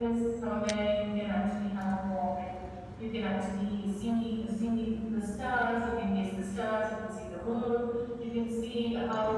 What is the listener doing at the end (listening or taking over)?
listening